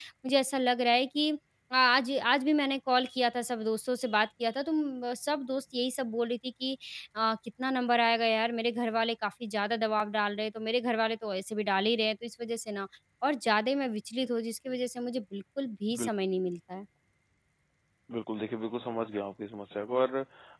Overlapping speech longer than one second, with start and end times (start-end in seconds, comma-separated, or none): none